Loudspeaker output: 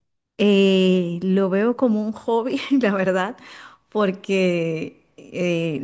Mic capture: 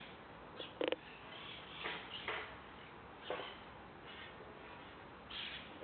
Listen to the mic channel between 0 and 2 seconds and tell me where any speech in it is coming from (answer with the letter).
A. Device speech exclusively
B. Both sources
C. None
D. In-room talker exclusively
C